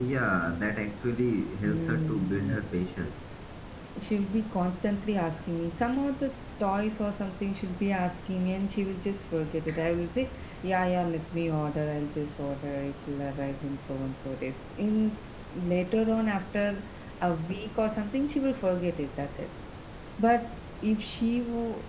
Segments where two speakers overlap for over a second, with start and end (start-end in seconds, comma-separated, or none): 1.6-2.9